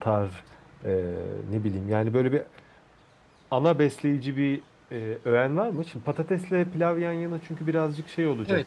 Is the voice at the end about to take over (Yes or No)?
Yes